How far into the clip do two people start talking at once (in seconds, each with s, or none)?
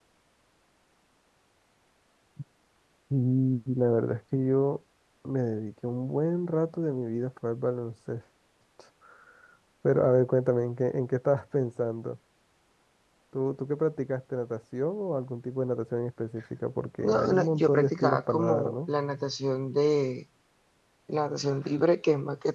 17.0 s